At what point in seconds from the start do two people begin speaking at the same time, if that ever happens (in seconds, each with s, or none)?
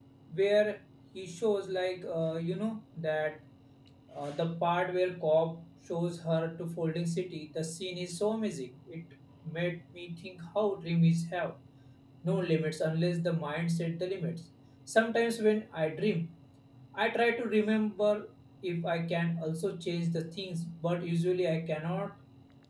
none